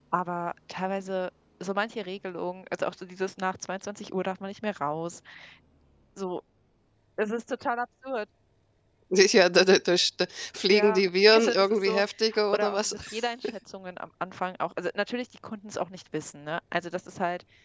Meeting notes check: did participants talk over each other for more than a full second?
Yes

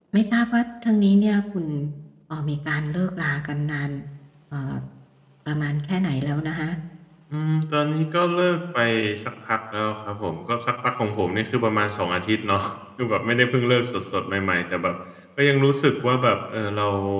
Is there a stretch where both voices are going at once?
No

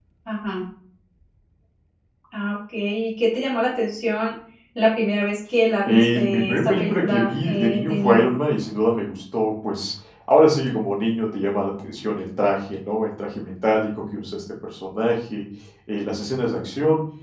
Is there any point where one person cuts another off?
Yes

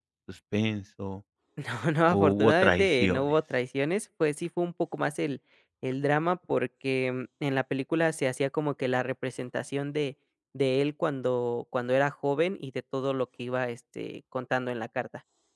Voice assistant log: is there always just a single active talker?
No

